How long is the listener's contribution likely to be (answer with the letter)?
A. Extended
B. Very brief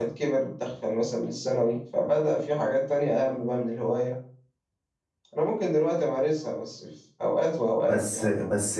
A